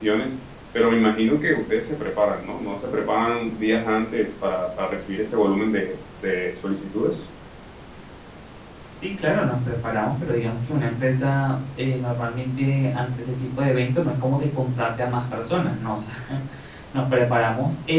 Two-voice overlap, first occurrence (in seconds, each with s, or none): none